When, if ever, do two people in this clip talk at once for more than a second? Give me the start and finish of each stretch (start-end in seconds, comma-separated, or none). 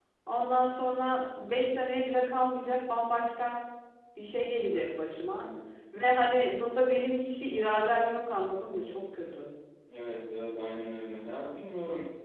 none